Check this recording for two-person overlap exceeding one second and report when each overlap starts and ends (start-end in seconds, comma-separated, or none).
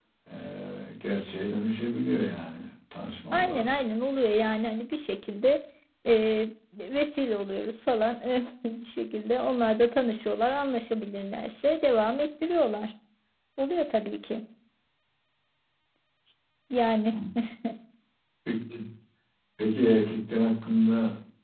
none